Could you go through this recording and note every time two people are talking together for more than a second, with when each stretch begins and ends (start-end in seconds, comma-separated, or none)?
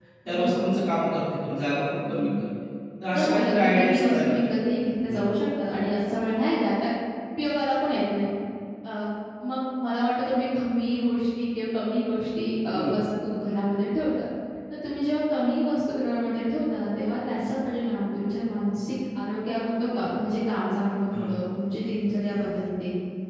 3.1-4.3